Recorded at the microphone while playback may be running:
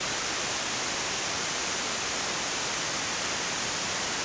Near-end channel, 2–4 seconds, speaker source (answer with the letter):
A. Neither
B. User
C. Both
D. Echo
A